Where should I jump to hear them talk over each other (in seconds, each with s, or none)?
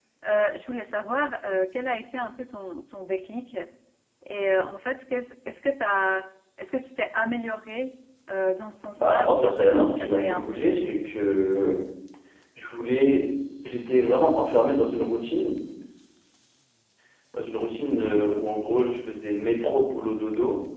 8.9 s